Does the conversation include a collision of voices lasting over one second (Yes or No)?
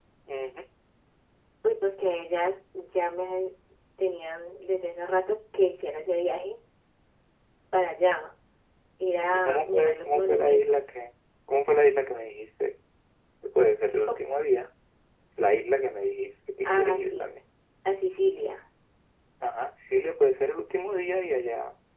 Yes